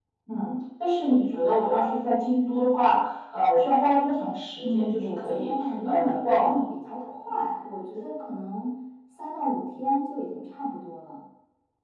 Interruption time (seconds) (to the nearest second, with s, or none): 5 s